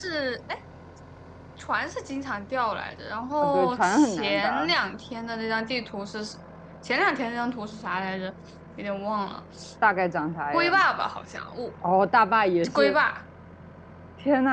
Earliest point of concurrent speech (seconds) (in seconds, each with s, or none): 3.4 s